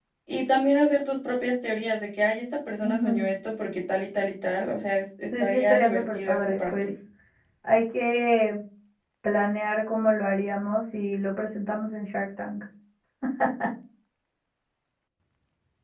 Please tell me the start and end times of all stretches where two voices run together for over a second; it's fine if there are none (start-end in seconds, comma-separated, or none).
5.4-6.9